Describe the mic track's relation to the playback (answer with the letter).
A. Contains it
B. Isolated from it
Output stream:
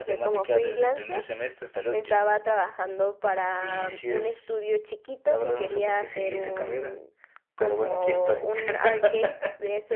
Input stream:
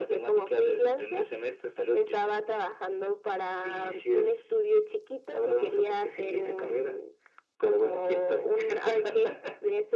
A